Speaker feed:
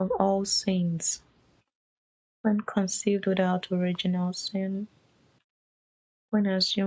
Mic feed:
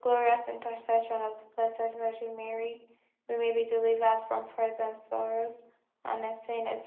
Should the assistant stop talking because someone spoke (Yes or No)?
Yes